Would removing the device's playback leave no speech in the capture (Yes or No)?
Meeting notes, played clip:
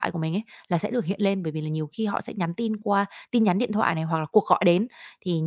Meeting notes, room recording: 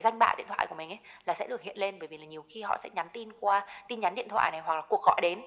Yes